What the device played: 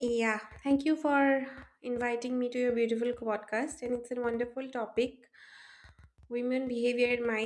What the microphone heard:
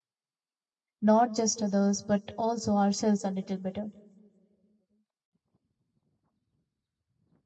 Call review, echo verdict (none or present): none